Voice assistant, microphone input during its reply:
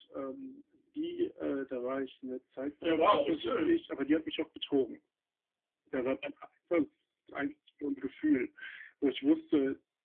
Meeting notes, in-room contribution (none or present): present